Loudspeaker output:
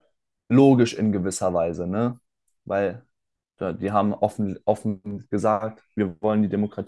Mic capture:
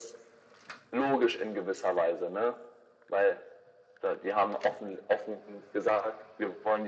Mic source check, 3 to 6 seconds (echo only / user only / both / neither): echo only